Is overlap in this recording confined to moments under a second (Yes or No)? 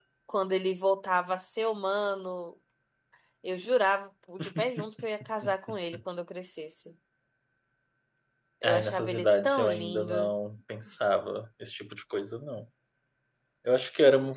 No